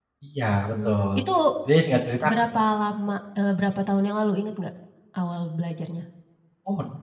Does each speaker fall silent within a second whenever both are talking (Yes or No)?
Yes